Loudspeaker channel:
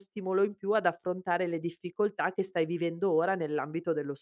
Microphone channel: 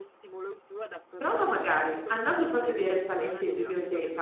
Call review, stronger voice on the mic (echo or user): user